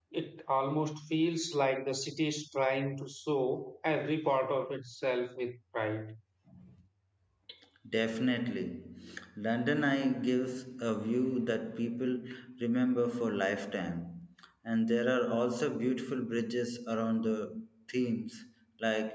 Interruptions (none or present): none